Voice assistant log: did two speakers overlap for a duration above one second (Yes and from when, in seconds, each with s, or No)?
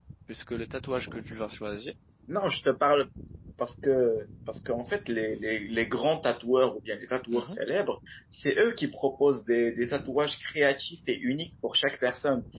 No